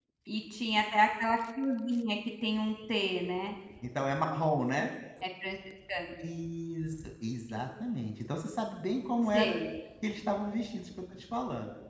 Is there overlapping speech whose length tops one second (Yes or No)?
No